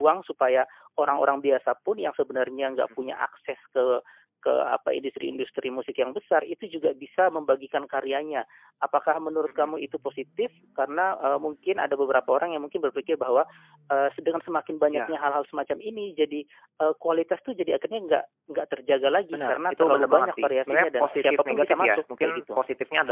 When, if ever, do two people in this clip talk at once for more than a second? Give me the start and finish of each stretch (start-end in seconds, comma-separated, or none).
19.3-22.6